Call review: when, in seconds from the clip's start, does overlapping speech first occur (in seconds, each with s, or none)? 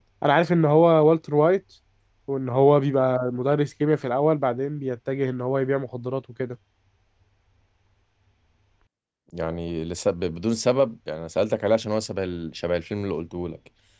none